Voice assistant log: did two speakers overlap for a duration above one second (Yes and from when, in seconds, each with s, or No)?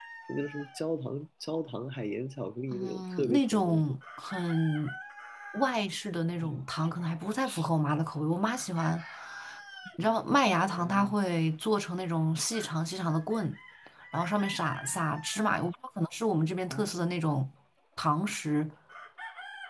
Yes, from 2.7 s